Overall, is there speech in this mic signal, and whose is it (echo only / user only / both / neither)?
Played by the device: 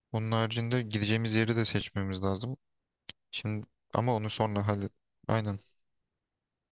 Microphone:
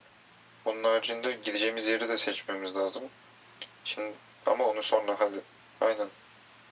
echo only